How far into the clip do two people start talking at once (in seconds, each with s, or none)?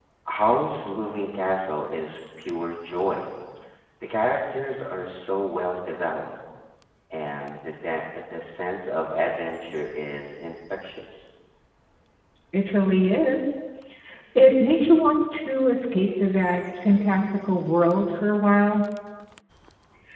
none